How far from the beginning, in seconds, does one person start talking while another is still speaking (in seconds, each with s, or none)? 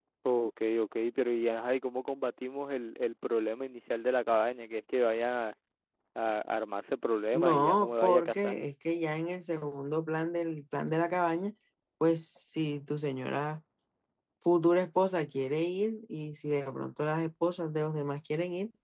7.3 s